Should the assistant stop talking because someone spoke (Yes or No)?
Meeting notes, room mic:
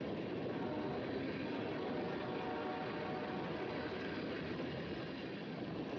No